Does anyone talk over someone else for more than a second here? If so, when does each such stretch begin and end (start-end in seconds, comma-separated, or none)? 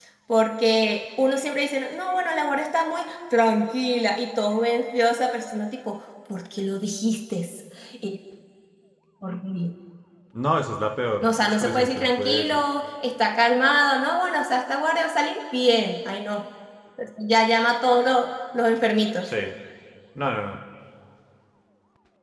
11.2-12.6